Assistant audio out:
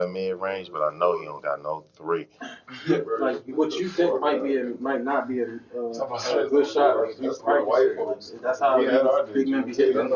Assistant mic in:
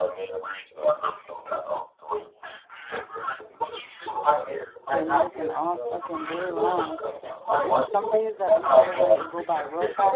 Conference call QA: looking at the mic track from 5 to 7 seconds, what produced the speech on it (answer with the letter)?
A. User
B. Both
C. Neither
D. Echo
B